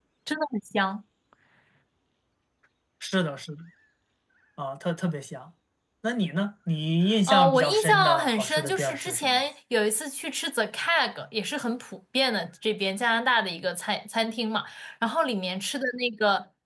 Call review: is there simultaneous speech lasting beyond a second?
Yes, from 7.3 s

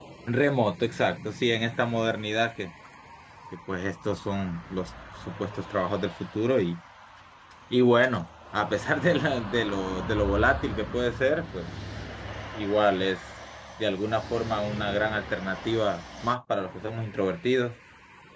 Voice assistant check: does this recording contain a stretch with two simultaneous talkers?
No

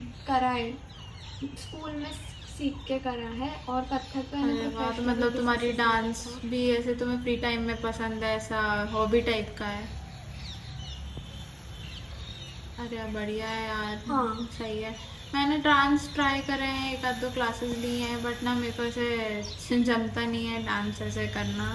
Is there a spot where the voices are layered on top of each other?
Yes, from 4.4 s

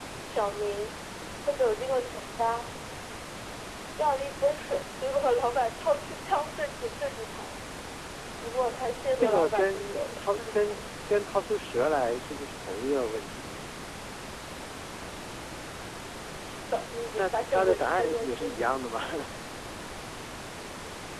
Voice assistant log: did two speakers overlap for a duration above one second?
Yes, from 9.2 s

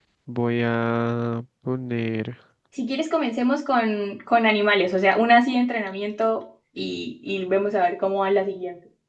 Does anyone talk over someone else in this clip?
No

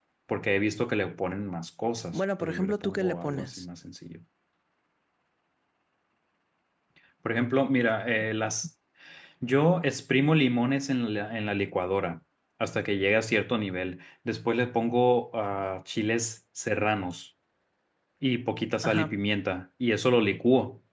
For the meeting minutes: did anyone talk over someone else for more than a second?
Yes, from 2.1 s

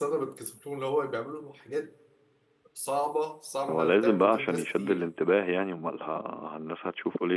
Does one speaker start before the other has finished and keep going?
Yes, from 3.7 s

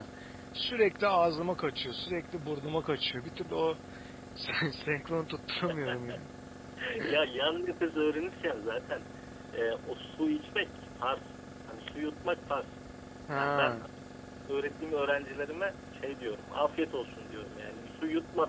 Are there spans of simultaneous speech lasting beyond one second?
No

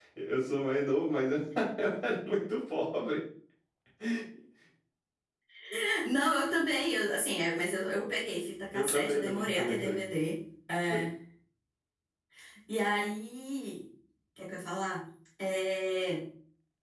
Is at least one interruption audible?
Yes, from 8.7 s

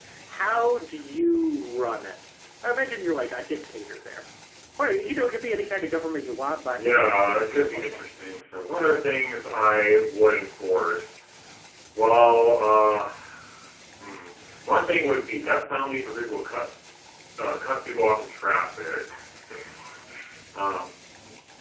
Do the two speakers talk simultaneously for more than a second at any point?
Yes, from 6.6 s

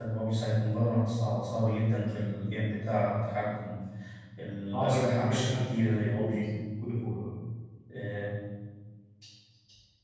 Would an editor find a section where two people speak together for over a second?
Yes, from 4.7 s

